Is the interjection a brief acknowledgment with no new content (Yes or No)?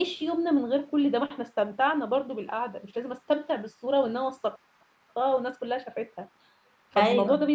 Yes